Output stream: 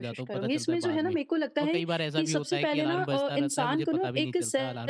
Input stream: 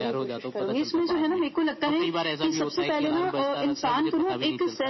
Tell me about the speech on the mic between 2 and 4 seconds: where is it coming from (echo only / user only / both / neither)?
echo only